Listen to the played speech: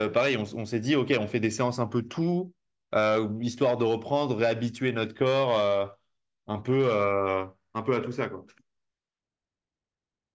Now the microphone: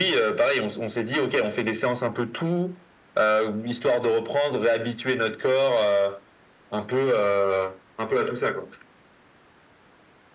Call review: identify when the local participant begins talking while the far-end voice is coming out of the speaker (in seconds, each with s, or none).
none